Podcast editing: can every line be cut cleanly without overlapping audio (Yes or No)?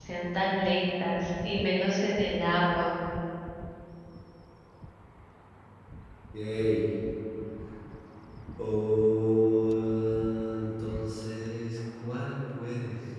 Yes